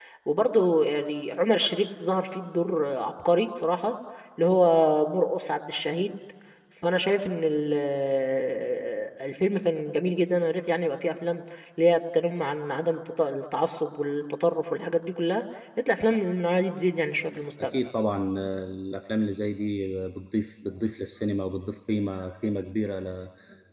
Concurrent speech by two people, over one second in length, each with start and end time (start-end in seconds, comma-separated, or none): none